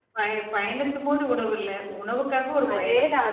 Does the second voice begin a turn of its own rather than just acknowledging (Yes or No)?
Yes